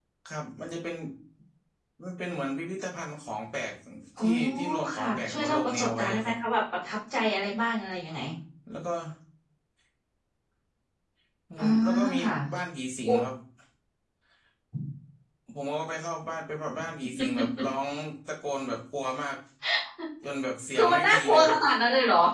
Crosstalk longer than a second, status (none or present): present